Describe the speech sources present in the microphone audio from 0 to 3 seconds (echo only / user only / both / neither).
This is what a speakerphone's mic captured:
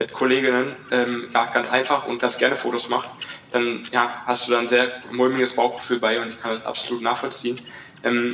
echo only